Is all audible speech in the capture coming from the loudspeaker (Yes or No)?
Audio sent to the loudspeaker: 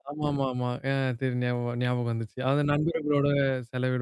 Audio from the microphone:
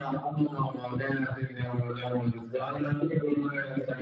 Yes